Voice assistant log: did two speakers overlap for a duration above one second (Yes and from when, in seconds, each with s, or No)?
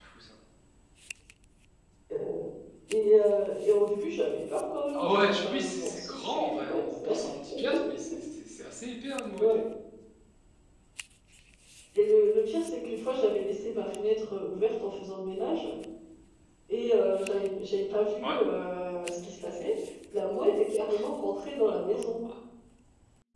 Yes, from 4.9 s